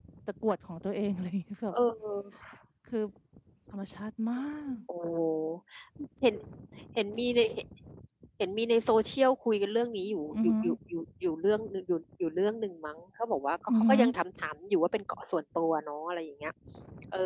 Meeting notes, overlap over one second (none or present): none